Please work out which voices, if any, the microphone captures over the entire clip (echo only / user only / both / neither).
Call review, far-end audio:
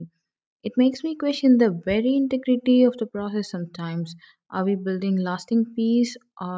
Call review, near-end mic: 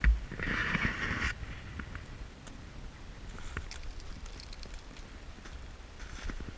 neither